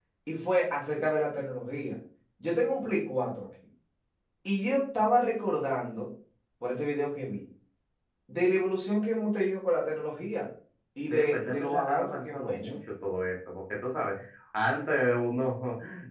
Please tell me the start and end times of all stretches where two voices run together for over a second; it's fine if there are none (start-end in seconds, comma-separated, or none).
11.1-12.8